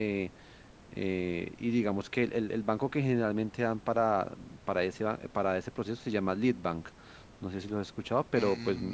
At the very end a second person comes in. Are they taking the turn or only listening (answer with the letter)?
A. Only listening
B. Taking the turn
B